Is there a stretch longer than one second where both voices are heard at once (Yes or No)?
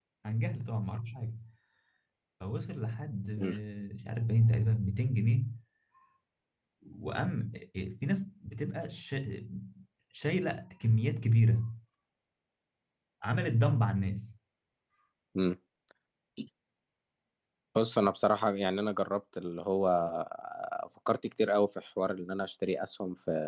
No